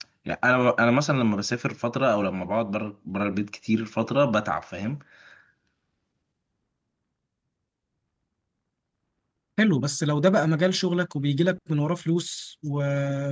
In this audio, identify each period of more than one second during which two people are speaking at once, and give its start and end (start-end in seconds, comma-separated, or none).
none